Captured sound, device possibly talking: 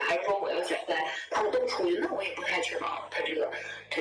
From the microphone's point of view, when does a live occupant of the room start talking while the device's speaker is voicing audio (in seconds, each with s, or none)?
none